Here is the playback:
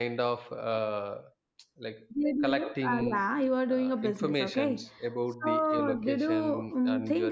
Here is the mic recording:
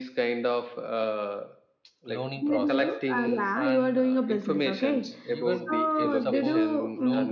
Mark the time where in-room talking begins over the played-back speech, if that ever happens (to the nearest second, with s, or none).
2 s